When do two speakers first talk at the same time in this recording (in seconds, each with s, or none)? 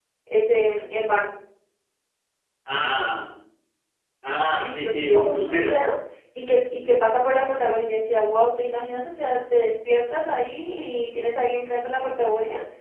4.5 s